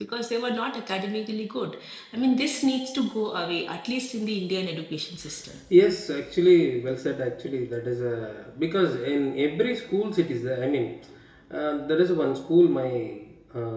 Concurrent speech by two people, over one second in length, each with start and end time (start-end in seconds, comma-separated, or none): none